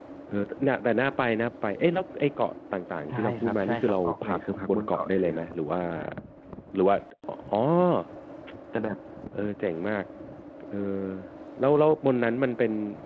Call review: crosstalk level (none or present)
present